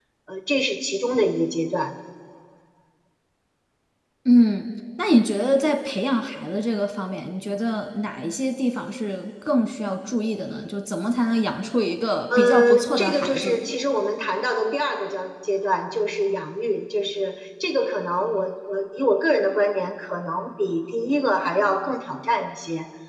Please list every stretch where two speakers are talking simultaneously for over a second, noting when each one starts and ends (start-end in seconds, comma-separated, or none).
12.4-13.6